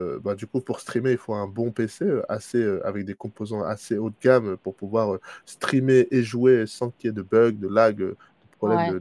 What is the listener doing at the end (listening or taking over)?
taking over